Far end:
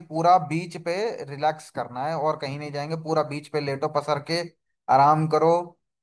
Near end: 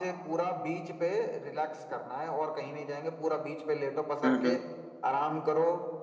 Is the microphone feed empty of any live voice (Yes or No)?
No